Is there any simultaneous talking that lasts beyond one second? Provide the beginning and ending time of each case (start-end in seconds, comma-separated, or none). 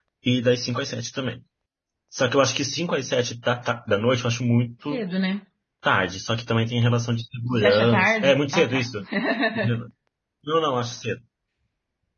7.5-8.8